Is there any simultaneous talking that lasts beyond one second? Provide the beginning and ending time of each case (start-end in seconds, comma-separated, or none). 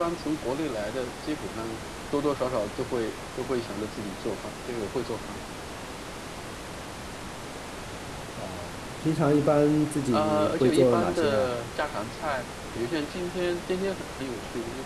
10.1-11.5